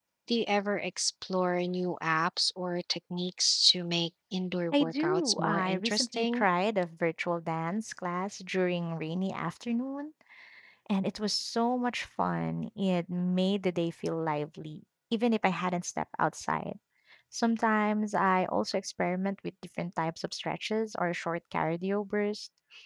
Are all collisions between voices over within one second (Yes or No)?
No